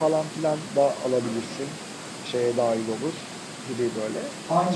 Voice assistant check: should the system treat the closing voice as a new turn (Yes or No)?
Yes